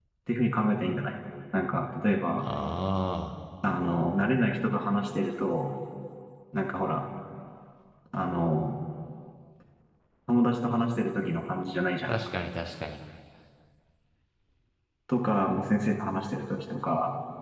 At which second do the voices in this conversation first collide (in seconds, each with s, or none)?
none